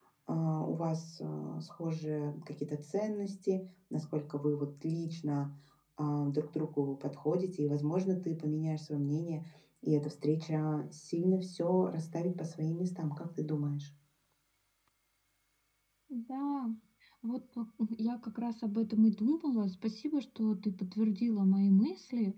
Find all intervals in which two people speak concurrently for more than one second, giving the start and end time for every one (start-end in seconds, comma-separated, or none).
none